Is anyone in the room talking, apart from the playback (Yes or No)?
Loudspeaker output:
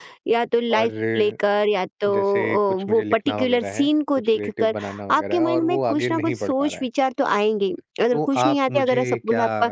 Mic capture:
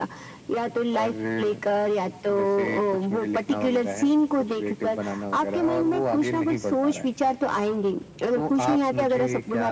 No